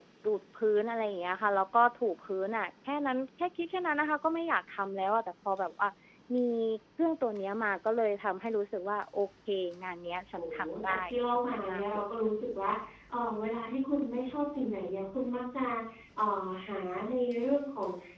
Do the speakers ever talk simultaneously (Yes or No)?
Yes